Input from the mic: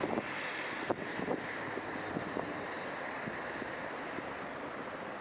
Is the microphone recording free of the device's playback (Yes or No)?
Yes